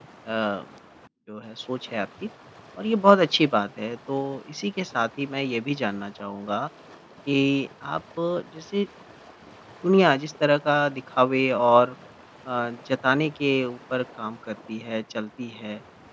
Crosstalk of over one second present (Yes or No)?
No